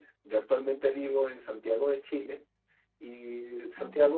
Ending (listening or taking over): listening